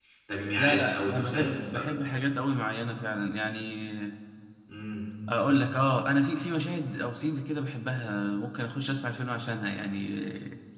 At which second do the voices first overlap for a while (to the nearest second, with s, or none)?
1 s